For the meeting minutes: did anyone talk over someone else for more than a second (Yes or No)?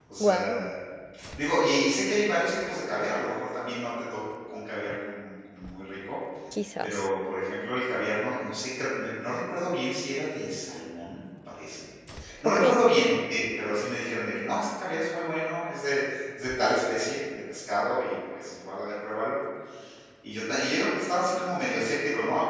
No